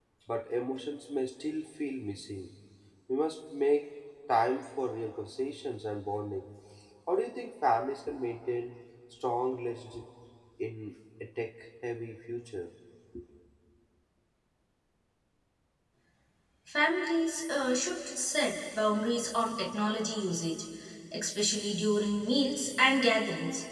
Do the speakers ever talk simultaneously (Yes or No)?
No